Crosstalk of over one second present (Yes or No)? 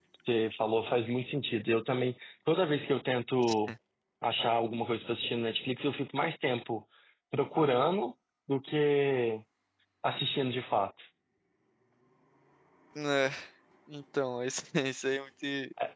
No